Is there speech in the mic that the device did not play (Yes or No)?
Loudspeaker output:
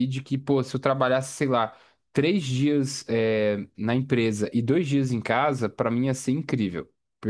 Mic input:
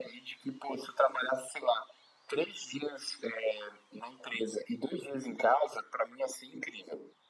No